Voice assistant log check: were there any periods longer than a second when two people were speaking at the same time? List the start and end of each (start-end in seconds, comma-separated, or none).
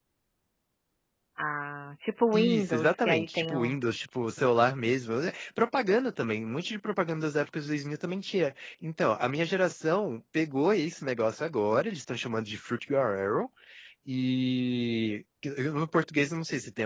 2.3-3.8